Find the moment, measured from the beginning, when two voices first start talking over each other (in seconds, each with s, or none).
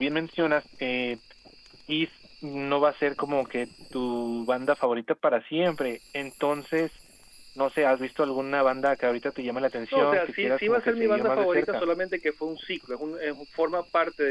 9.9 s